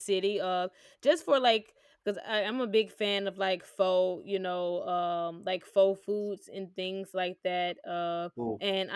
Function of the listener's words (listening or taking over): listening